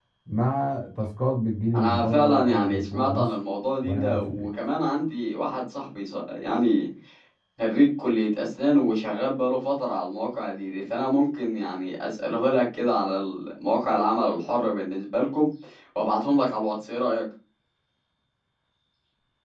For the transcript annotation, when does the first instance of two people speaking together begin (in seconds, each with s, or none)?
1.7 s